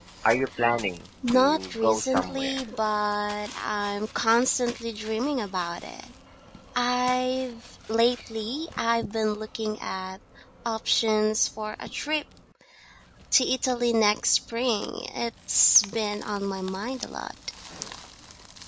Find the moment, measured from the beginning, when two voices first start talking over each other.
1.2 s

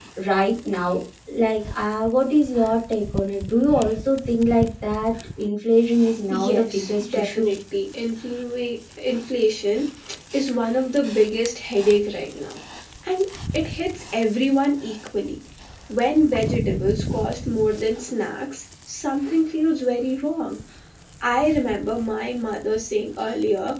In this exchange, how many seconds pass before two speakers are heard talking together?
6.3 s

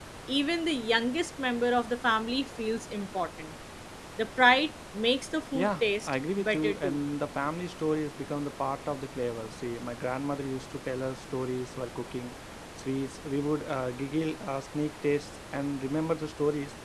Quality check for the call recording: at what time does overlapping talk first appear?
5.5 s

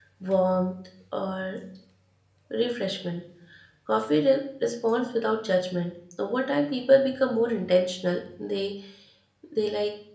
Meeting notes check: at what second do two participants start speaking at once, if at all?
none

